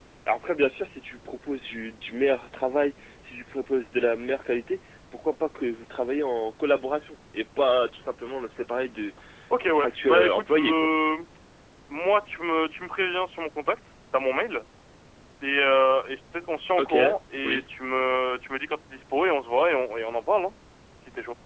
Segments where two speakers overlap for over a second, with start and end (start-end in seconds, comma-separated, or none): 9.7-10.9